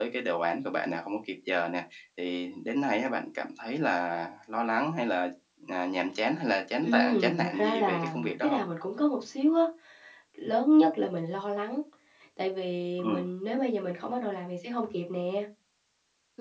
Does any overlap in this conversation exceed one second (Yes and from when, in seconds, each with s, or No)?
Yes, from 6.8 s